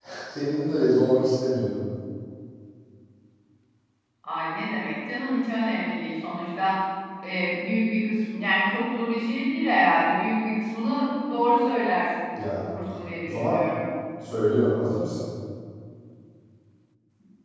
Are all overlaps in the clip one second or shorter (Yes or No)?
Yes